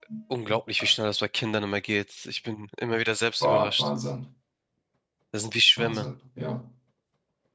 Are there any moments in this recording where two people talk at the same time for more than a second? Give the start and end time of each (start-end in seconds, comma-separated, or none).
none